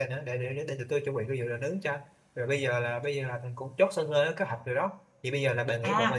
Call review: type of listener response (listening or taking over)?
taking over